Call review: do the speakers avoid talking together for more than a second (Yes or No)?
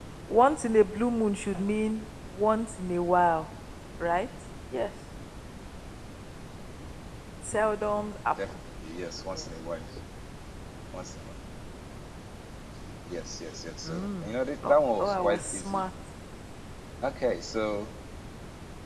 No